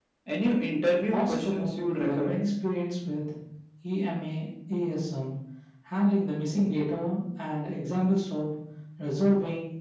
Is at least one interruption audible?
Yes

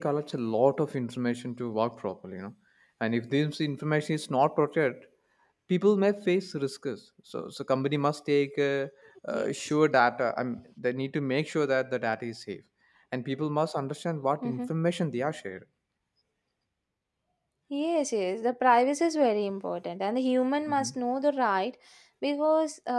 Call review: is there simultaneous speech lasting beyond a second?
No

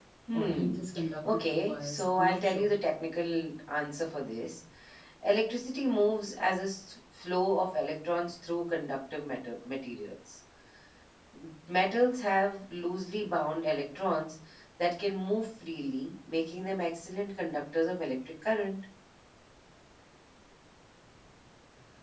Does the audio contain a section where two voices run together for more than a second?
Yes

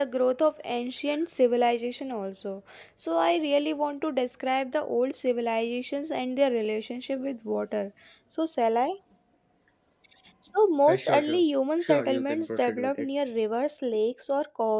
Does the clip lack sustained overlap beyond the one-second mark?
No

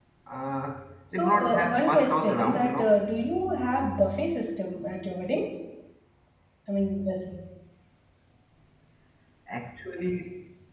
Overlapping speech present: Yes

